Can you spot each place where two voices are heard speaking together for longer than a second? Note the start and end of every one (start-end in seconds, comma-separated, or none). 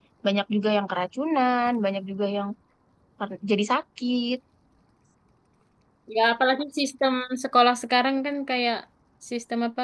none